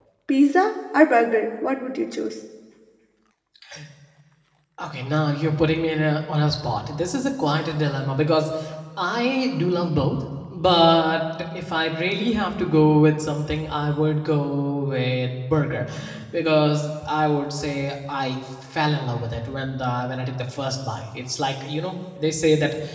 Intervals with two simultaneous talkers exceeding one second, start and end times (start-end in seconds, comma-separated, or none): none